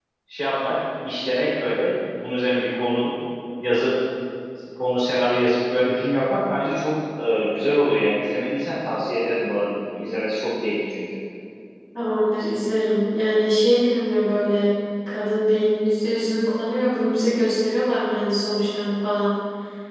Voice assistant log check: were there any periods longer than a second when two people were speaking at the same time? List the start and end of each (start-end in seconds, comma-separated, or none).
none